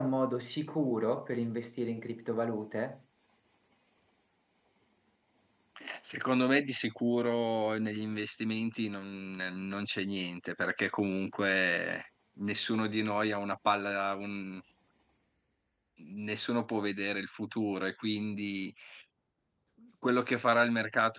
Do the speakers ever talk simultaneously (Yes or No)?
No